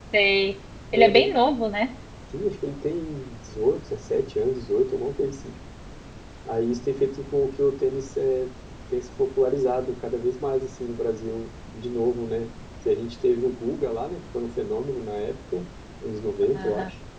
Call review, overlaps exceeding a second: none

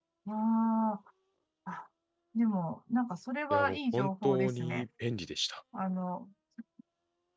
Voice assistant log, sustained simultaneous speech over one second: present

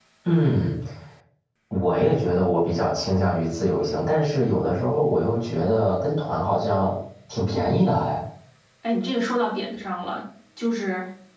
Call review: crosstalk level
none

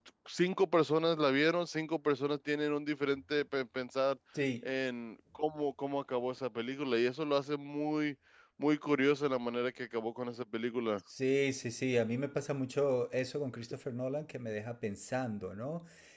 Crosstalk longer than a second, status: none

